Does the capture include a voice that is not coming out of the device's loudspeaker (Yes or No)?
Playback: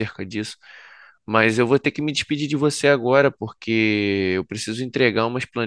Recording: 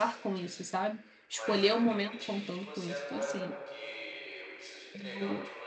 Yes